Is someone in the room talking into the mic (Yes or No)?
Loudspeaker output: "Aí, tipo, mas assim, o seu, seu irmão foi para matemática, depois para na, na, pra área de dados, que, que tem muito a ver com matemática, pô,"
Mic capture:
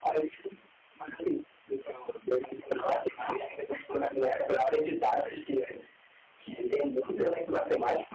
No